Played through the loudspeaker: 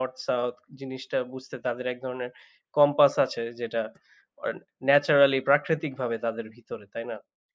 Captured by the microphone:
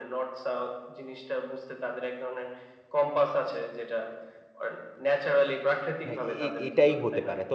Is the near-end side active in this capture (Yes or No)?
Yes